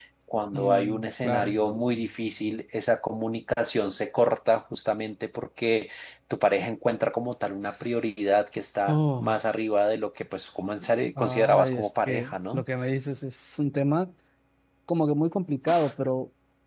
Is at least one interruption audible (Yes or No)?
Yes